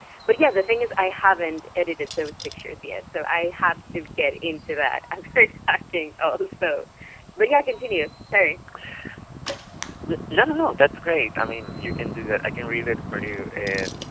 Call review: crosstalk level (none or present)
none